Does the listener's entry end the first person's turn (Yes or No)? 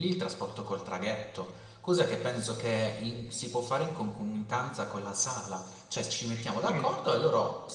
No